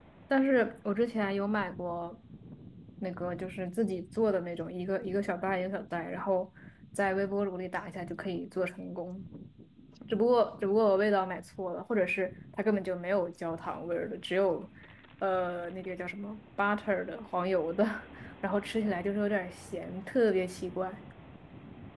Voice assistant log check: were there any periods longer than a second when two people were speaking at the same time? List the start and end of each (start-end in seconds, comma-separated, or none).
none